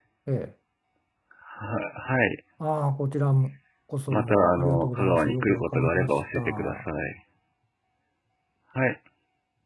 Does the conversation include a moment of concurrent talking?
Yes, from 4.1 s

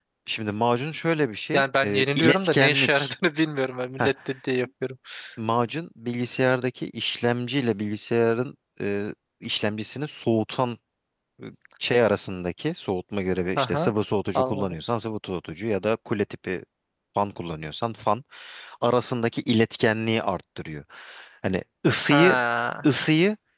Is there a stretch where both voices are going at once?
Yes, from 1.5 s

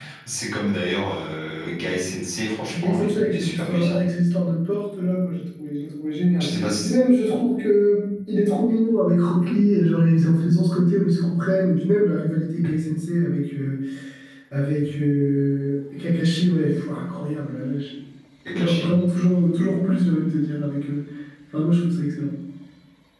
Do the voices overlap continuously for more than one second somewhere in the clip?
Yes, from 2.7 s

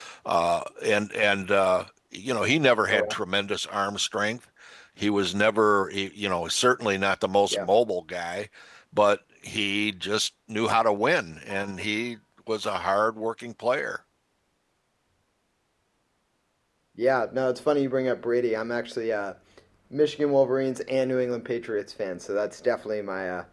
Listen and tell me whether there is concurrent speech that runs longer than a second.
No

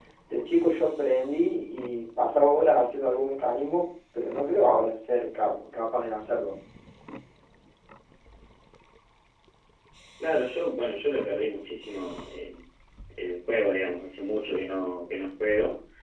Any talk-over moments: No

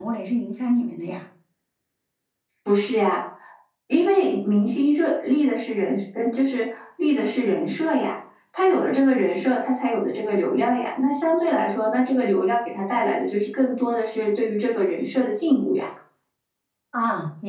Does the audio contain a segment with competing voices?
No

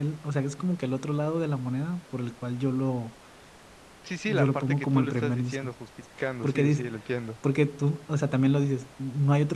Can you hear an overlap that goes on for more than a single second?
Yes, from 4.3 s

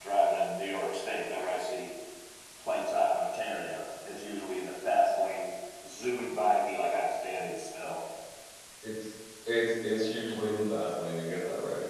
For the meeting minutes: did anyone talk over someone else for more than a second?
No

